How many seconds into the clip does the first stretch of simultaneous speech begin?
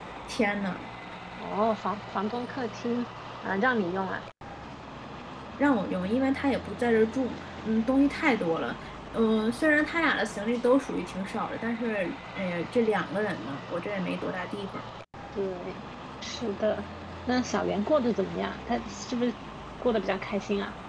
none

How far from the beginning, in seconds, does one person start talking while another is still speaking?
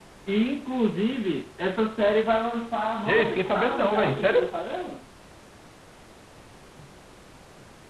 3 s

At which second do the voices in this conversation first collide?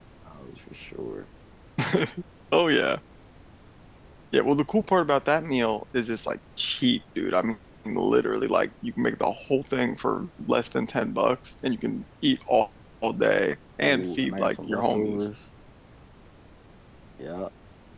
14 s

